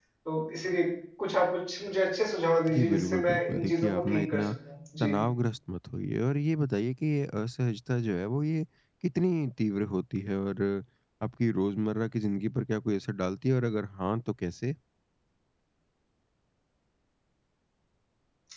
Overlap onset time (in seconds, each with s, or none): 2.7 s